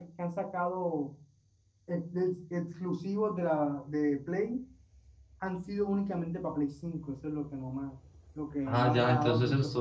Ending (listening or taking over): taking over